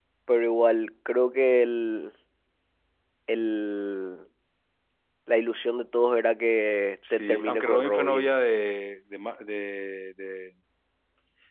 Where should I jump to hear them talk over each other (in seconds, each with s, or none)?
7.0 s